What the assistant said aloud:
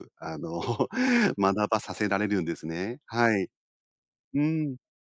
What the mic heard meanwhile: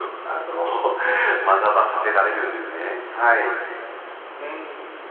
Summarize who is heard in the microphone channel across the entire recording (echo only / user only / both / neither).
echo only